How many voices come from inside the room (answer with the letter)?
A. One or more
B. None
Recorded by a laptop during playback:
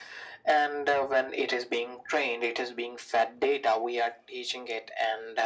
B